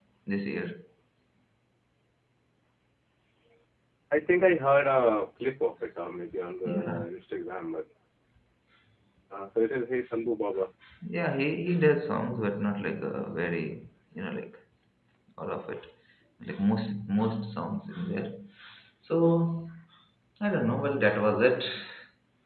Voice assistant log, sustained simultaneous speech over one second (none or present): none